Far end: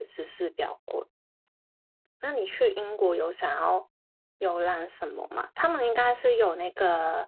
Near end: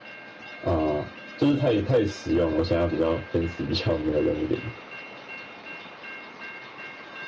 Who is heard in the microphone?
user only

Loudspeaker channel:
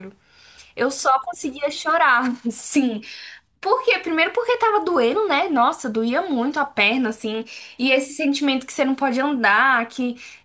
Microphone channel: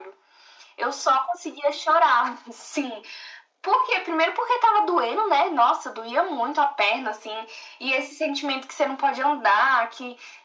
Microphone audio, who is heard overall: echo only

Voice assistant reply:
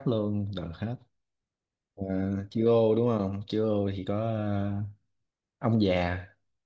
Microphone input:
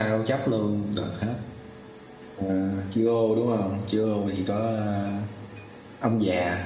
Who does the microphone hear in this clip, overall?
echo only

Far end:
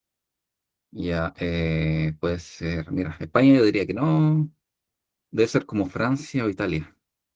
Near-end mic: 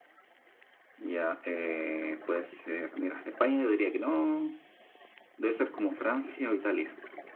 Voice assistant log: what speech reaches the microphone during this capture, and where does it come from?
echo only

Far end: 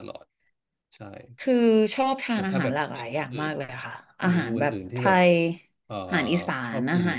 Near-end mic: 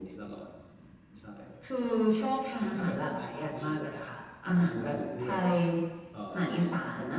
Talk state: echo only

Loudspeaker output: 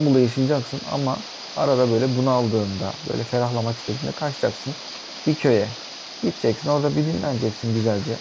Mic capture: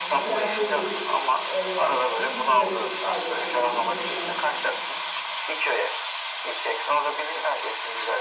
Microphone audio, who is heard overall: both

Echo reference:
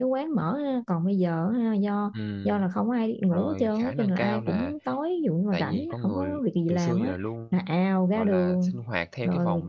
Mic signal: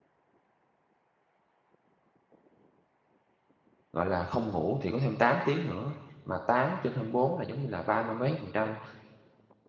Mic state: user only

